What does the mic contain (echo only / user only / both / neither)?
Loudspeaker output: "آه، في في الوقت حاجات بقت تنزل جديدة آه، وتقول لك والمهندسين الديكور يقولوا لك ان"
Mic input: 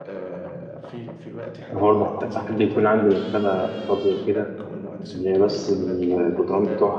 both